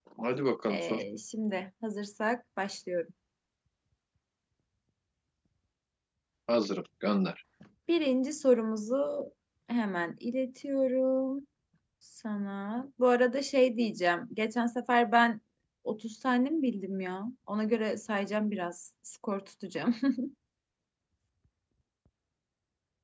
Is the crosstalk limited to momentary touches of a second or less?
Yes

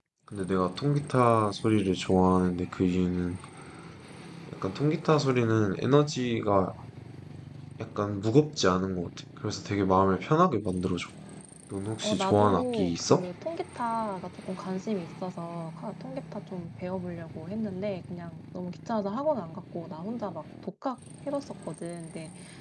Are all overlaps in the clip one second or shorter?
No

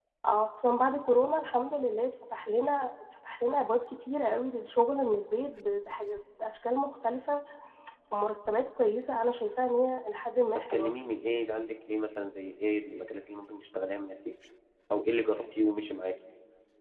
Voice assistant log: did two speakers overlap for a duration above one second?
No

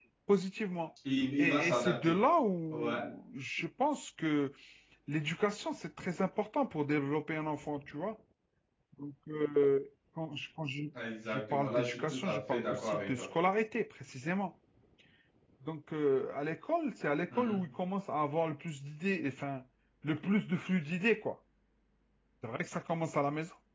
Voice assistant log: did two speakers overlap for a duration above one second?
Yes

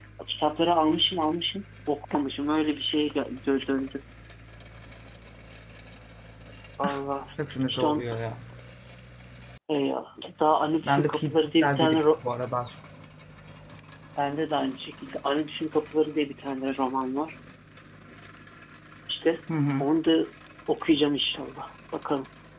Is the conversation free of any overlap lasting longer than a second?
No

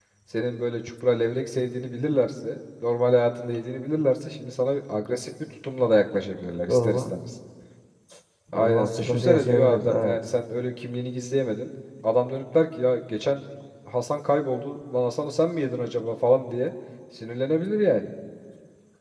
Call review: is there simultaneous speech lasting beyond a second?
Yes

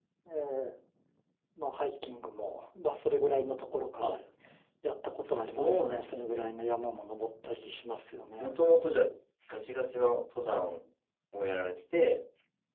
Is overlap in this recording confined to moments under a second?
No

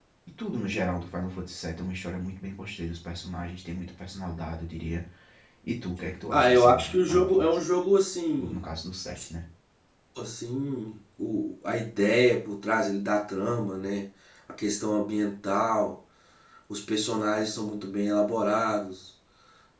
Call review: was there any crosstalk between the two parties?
Yes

